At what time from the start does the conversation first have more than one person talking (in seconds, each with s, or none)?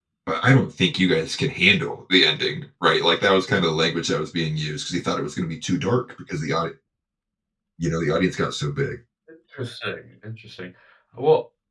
none